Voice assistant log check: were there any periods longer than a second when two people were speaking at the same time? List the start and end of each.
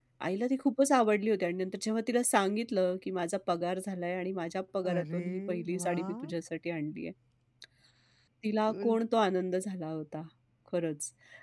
4.8-6.3

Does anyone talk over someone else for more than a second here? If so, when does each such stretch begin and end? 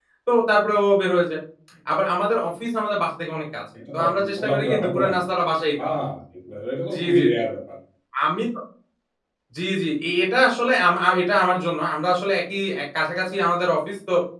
3.9-5.1

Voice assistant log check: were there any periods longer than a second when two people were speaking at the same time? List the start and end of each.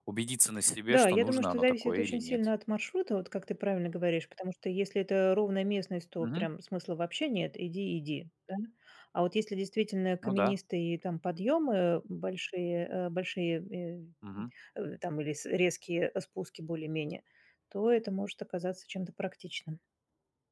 0.9-2.4

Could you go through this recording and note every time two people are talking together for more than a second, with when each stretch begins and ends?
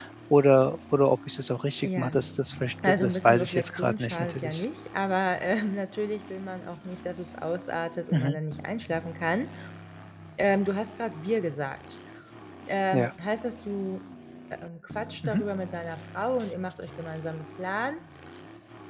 2.9-4.7

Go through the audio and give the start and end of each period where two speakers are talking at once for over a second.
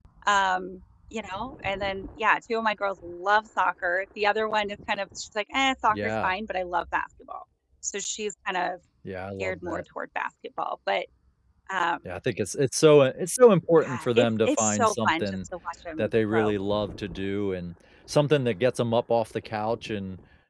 13.8-15.5

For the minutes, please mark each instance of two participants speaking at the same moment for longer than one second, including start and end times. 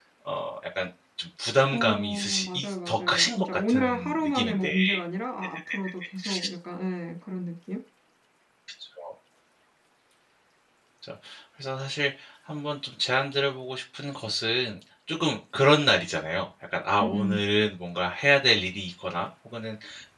1.7-4.7

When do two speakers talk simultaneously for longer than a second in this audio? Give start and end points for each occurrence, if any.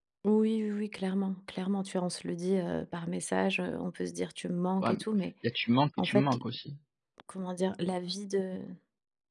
none

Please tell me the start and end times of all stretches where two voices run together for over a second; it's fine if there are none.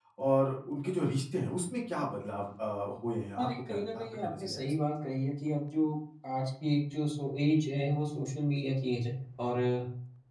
3.4-4.7

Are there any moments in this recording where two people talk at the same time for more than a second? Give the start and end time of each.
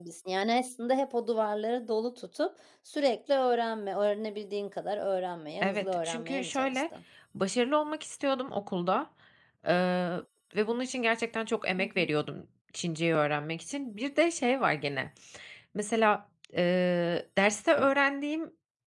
5.6-6.8

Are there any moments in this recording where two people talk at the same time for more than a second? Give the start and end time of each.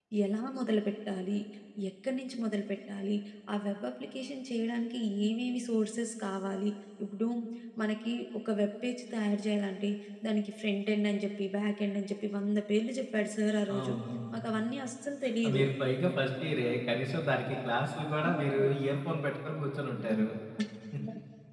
none

